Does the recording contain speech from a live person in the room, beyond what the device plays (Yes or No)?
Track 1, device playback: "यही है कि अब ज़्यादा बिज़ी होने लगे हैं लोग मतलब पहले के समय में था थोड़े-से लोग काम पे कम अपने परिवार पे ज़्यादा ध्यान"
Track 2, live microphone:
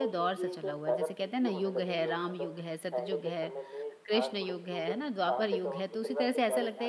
Yes